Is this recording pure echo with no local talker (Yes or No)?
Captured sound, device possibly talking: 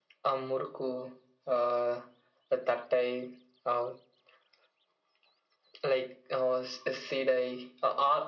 Yes